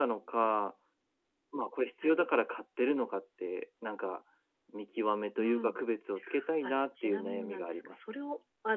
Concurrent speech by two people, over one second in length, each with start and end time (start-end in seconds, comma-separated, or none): 6.6-8.0